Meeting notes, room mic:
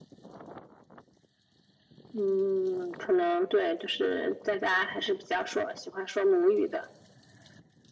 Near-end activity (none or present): none